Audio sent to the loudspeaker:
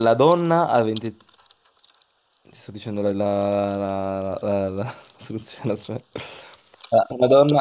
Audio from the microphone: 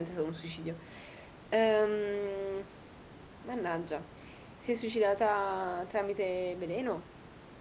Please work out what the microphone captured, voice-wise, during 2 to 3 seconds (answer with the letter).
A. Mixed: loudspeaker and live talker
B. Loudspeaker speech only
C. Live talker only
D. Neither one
C